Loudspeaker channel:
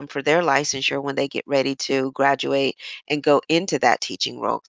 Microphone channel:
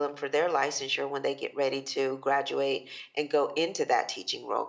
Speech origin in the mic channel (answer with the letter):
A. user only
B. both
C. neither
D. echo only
D